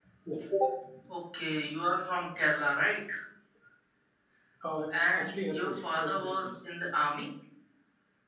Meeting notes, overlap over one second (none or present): present